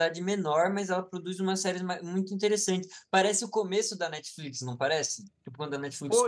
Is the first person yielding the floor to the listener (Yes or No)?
Yes